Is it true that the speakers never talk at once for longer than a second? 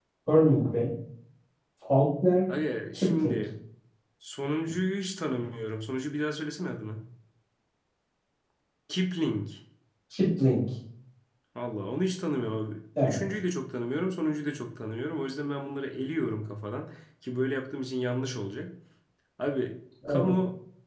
Yes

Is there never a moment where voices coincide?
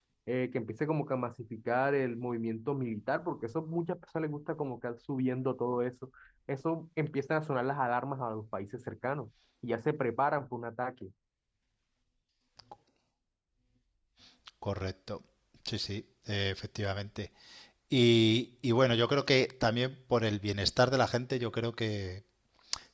Yes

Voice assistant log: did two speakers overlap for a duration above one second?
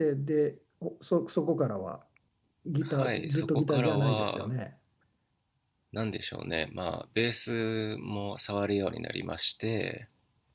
Yes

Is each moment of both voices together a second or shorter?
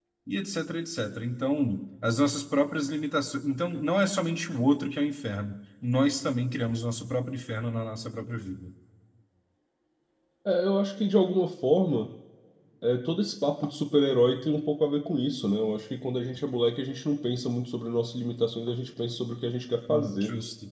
Yes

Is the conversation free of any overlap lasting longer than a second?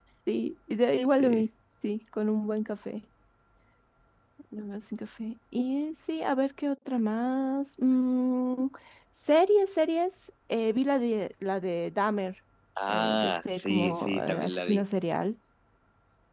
No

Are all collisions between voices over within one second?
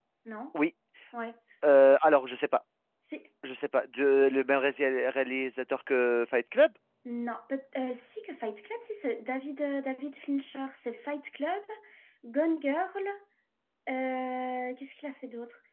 Yes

